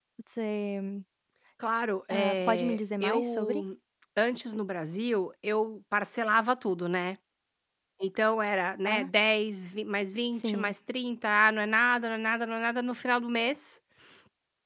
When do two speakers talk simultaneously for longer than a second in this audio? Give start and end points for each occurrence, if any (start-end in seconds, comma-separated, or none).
2.1-3.6